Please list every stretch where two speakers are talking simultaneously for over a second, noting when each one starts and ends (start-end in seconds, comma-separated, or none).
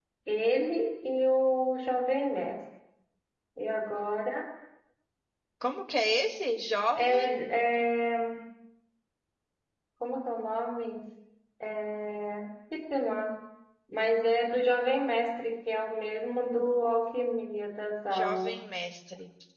none